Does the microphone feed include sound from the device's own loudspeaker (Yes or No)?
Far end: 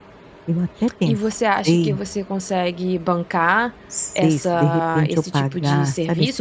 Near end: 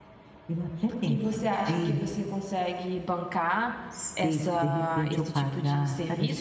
Yes